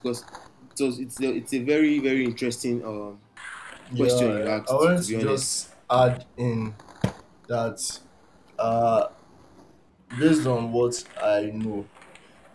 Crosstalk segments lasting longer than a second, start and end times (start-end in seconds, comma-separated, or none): 4.0-5.6